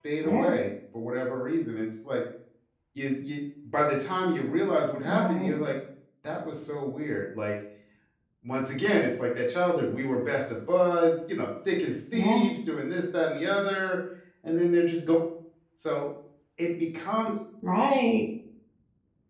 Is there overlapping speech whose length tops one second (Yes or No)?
No